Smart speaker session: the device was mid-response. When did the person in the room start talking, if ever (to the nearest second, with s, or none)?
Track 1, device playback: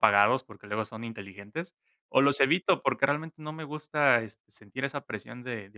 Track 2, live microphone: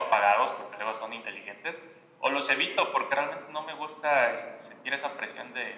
none